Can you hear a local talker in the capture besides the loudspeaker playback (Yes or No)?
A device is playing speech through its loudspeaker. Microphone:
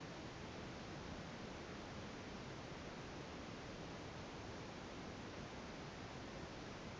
No